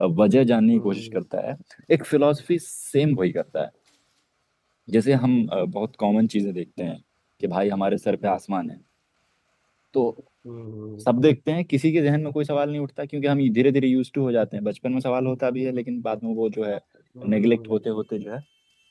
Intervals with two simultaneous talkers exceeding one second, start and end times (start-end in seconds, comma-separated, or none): none